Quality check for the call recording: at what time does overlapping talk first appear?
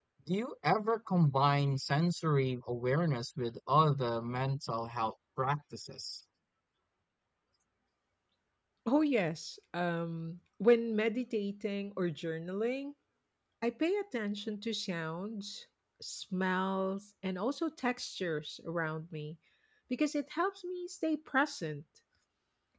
none

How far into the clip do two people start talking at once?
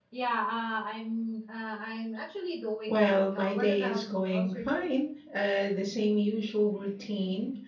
3 s

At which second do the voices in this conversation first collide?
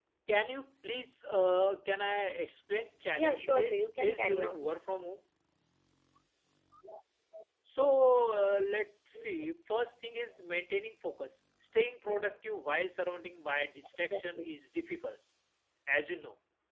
3 s

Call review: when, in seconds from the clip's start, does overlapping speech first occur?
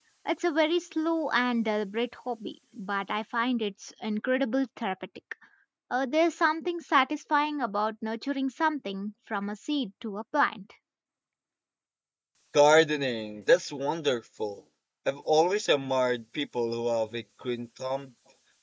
none

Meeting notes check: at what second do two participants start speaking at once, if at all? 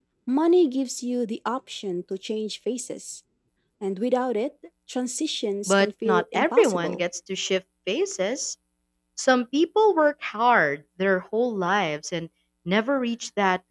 6 s

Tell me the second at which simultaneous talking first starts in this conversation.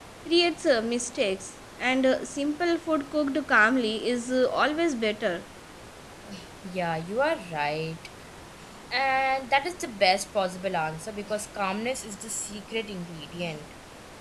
none

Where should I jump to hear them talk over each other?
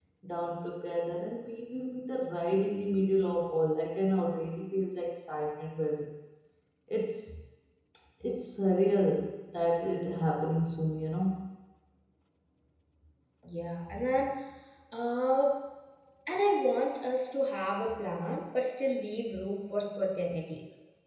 none

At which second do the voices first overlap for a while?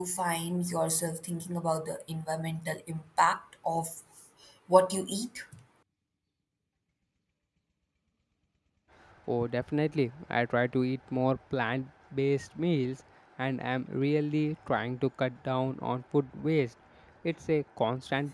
none

